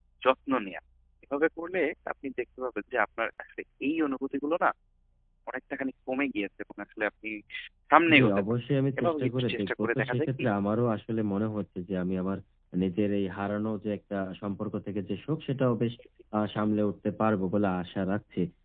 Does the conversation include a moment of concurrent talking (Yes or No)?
Yes